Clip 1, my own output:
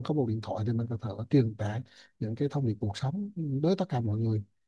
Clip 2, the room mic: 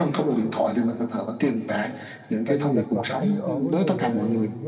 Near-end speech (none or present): present